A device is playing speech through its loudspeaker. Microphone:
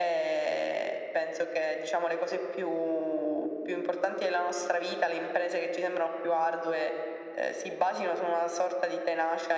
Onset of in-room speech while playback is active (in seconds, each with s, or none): none